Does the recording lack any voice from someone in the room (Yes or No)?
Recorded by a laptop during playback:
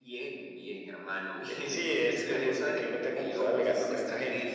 Yes